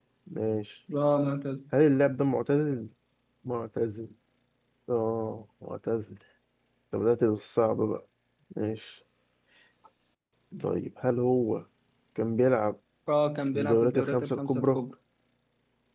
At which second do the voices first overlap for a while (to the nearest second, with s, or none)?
14 s